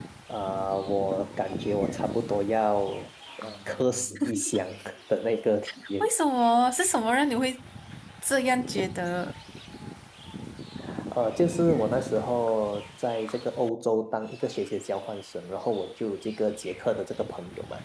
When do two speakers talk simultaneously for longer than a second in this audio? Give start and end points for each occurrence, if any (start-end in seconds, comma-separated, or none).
none